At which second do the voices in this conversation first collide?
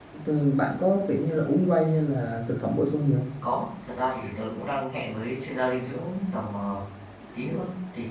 none

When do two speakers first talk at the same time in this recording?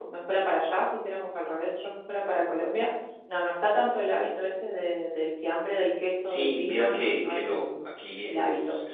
6.2 s

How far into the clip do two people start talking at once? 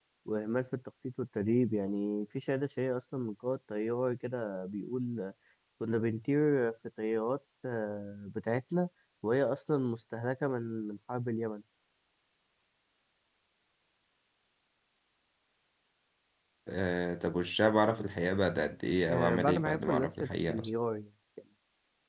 19.1 s

